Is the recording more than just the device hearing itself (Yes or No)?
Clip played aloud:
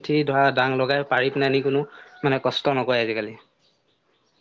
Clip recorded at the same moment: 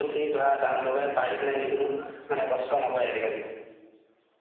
No